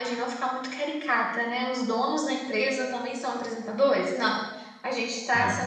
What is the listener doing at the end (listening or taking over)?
listening